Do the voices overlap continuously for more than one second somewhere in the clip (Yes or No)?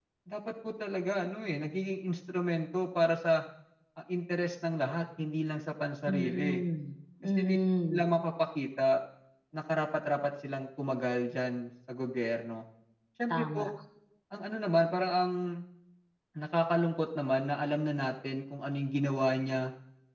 No